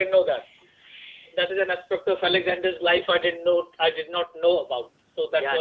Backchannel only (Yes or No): No